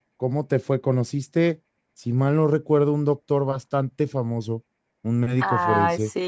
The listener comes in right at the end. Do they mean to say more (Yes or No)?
Yes